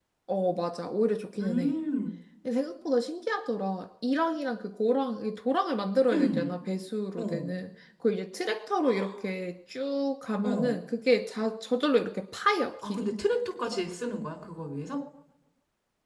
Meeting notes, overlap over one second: none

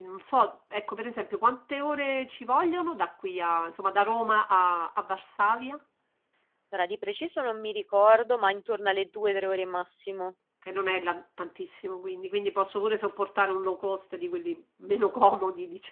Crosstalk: none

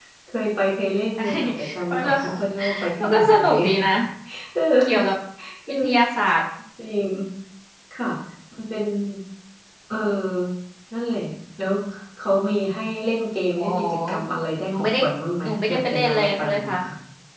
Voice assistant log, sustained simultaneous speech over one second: present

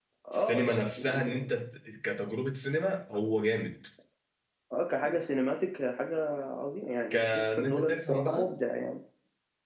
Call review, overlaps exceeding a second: present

